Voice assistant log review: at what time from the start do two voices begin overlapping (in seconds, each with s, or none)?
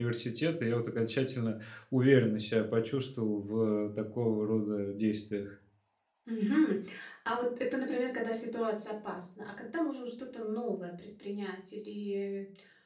none